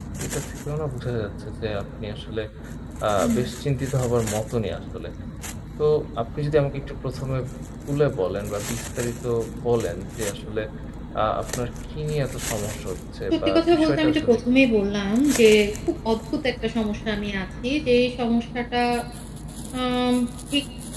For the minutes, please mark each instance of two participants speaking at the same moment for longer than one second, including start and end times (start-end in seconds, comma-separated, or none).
13.3-14.6